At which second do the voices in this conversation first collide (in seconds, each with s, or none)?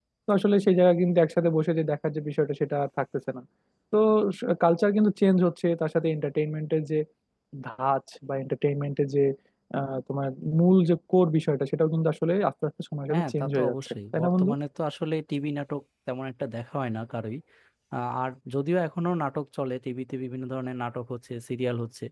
13.1 s